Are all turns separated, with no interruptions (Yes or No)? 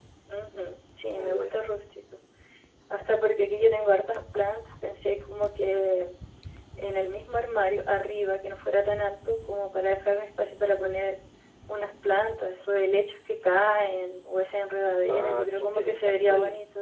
No